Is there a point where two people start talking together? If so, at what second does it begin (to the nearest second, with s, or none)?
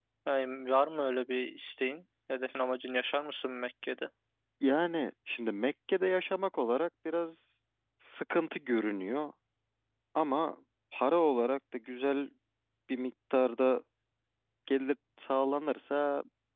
none